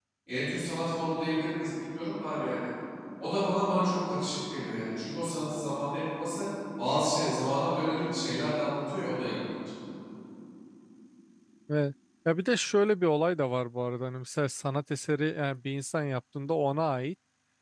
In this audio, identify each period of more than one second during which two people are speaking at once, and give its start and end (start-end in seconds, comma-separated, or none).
none